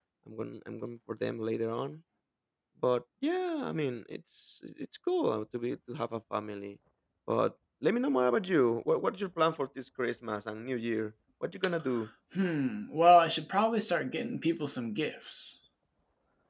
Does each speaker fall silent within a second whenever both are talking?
Yes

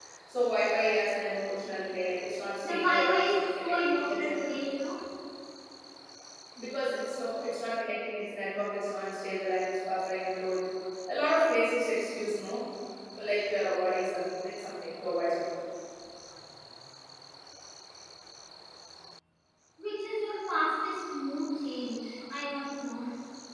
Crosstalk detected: Yes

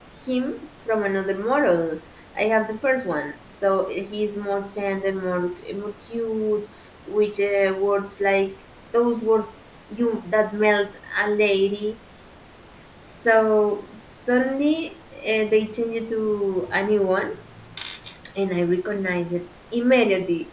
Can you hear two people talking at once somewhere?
No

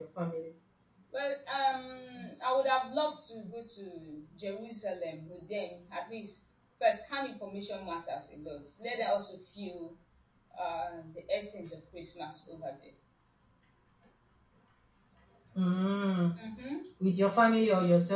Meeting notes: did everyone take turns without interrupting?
Yes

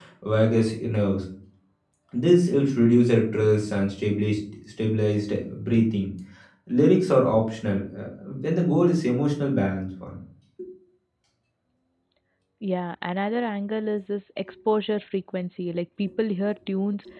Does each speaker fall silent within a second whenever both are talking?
Yes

